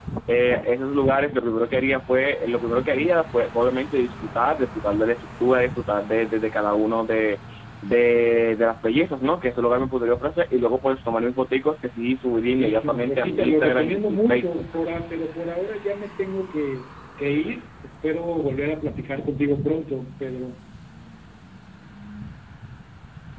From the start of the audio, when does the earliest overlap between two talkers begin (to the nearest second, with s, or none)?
12 s